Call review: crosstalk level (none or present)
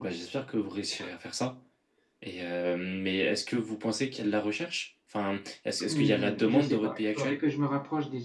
present